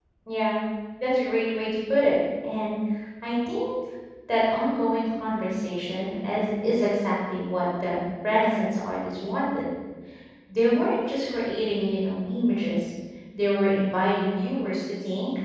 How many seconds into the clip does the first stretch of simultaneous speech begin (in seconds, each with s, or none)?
none